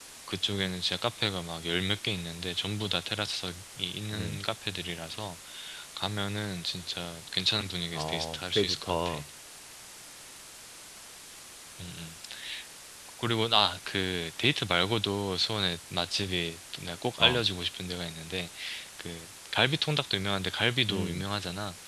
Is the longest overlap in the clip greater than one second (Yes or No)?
Yes